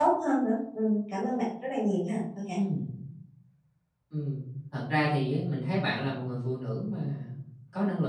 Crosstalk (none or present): none